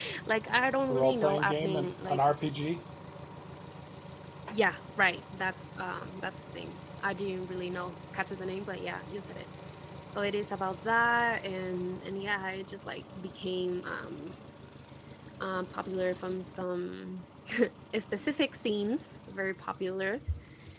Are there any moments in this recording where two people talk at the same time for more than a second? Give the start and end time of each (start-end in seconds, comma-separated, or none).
0.9-2.2